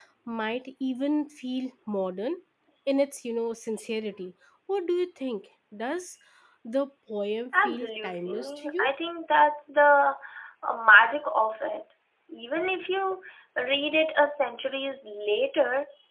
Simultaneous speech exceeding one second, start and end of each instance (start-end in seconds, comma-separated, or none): 7.7-8.9